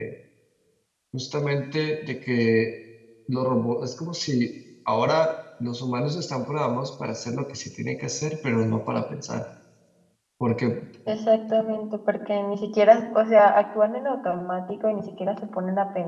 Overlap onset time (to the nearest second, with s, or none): none